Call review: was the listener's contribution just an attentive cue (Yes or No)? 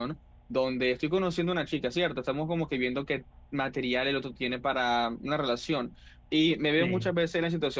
Yes